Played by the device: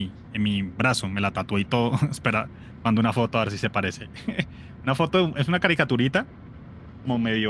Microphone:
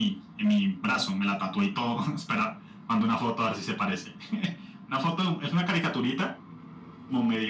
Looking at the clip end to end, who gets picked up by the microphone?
echo only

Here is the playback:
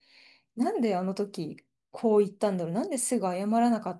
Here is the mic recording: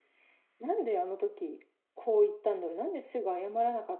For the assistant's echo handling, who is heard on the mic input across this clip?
echo only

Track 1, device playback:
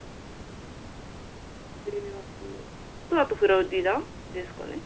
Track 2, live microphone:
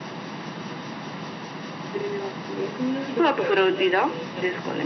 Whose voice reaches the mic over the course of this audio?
both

